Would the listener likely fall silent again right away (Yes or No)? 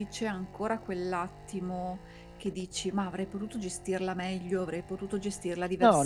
No